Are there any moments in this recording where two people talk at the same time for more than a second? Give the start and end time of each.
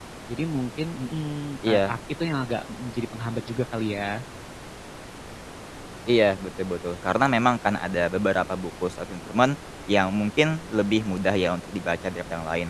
none

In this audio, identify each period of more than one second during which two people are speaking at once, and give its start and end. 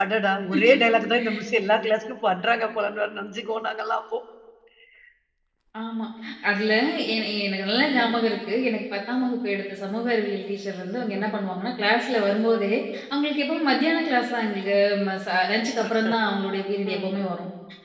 none

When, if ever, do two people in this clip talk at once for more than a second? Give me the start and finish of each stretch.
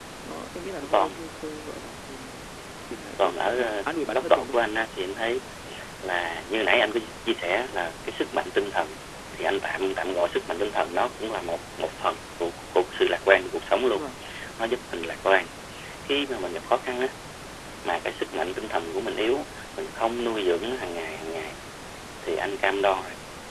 3.2-4.6

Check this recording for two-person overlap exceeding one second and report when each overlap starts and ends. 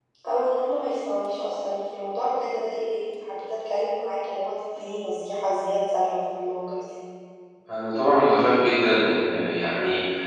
none

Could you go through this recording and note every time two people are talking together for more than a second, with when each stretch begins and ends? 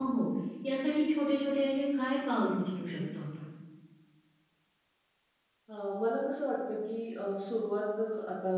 none

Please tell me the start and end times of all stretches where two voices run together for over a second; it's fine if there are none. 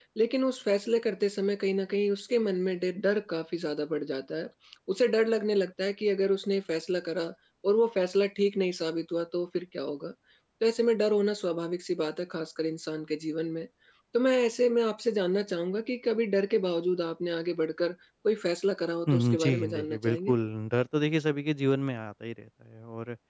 19.1-20.4

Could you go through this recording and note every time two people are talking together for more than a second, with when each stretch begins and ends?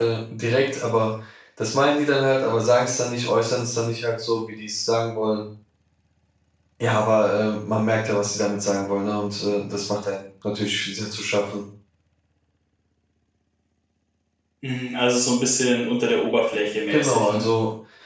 none

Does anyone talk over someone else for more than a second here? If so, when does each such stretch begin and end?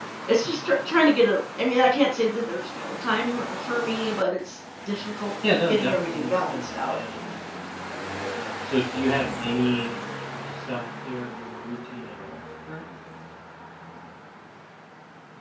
5.7-7.0

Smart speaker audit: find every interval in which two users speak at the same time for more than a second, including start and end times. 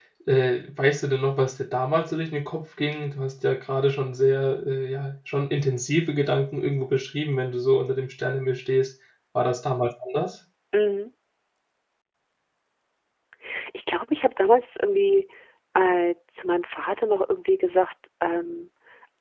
none

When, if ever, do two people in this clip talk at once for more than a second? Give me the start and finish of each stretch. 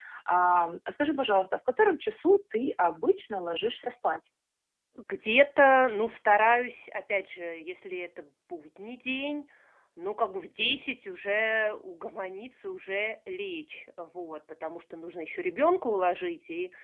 none

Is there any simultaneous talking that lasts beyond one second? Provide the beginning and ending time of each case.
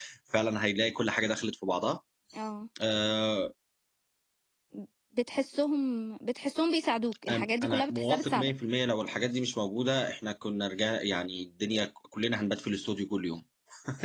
7.3-8.5

